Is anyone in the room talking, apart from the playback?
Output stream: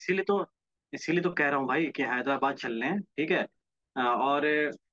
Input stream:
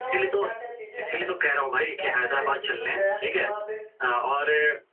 Yes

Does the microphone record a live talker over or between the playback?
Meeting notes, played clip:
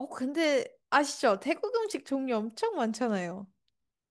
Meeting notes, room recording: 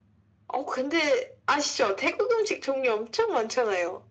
No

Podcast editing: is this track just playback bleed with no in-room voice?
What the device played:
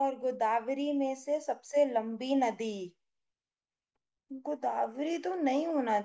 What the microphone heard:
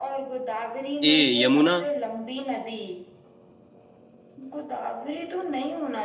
No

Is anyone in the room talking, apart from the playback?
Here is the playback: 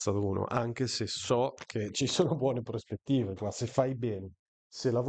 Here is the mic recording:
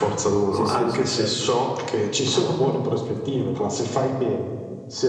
Yes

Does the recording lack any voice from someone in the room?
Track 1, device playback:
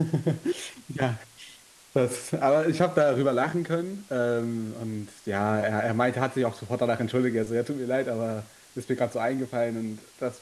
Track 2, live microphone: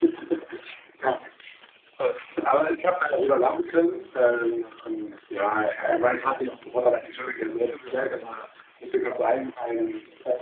Yes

